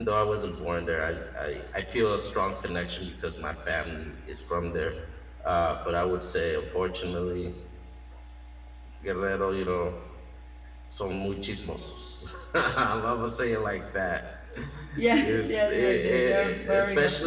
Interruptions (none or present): present